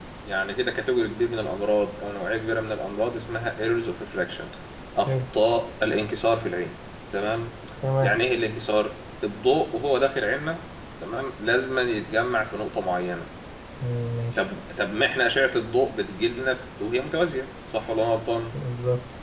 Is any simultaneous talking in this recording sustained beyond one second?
No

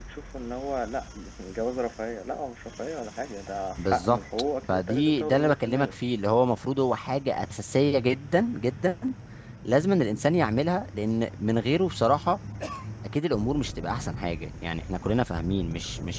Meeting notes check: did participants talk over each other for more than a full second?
Yes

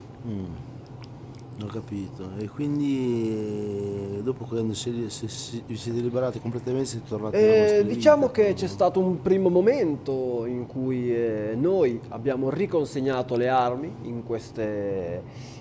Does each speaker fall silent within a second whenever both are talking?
No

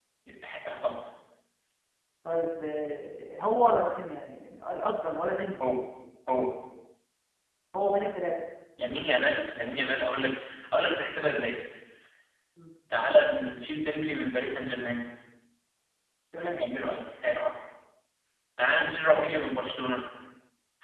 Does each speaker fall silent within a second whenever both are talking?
Yes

